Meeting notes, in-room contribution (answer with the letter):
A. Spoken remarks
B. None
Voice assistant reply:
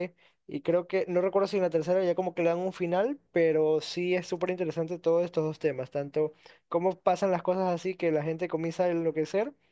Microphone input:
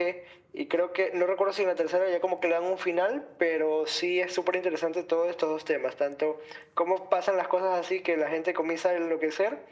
B